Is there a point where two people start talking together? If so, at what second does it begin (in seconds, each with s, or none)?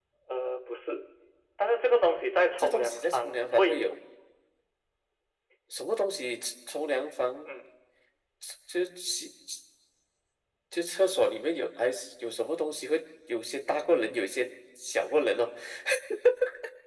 2.6 s